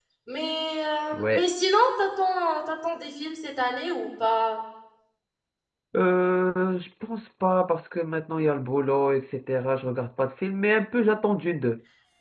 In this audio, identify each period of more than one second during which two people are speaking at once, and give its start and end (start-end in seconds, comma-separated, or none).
none